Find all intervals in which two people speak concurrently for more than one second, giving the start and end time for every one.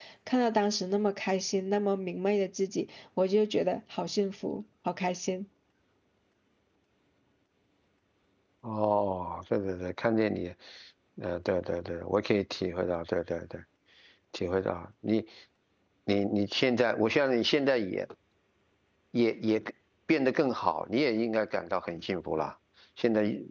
none

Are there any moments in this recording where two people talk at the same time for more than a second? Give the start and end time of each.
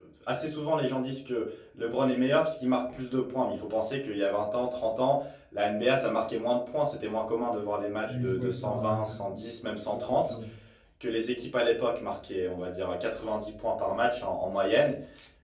8.1-9.4

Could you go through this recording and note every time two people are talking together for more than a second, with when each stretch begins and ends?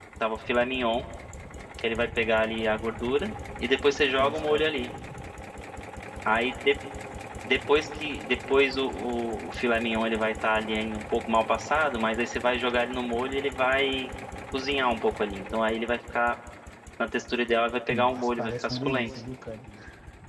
17.9-19.1

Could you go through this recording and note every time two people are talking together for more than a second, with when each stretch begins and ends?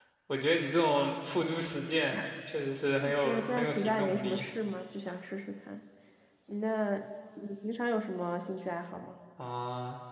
3.0-4.5

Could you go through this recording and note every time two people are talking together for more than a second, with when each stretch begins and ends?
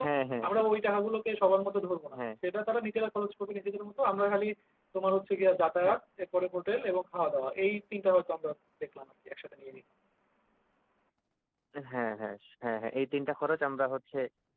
none

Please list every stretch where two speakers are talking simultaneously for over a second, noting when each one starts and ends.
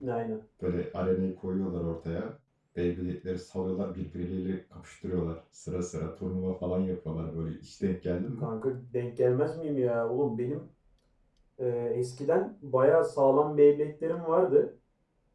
none

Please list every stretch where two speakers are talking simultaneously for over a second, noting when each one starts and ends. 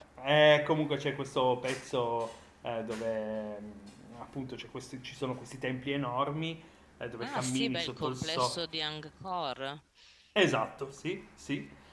7.2-8.6

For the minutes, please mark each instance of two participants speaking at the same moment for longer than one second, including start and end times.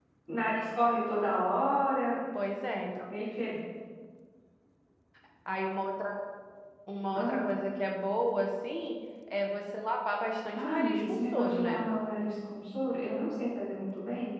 10.5-11.8

